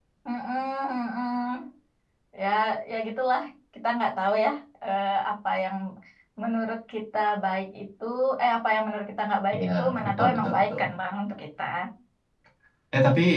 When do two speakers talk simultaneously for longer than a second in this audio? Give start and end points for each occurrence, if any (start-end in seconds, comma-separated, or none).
9.6-10.8